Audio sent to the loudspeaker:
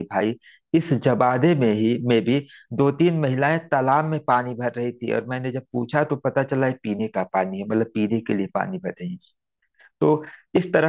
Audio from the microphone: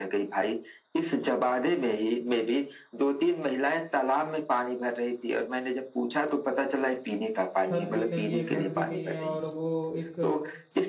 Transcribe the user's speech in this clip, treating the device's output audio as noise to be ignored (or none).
छत भी नहीं है घर भी नहीं है और वो एक